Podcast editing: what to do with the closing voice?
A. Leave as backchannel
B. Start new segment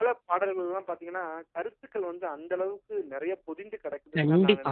B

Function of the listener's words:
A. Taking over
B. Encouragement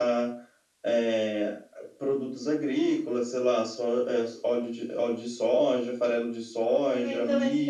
A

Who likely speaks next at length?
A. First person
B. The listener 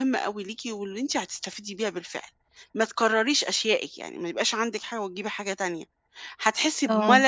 A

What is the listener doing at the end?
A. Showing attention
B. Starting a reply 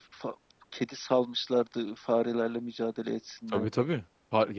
B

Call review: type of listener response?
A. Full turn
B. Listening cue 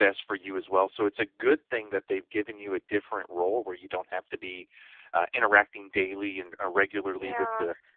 B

